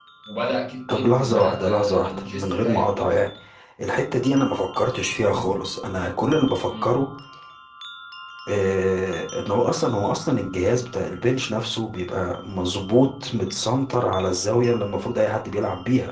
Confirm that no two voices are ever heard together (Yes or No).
No